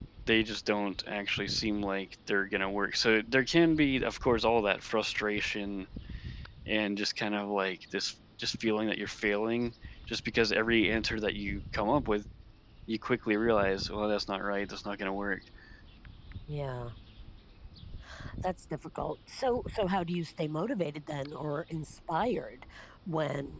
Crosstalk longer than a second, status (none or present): none